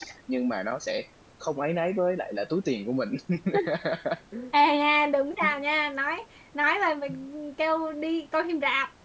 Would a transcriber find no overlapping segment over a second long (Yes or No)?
Yes